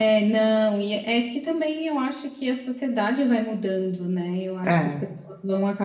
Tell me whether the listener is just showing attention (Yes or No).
Yes